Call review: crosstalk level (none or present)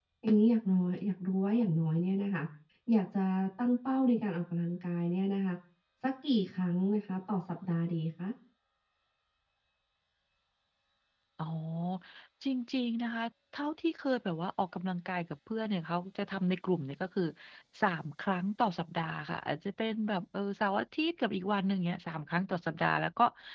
none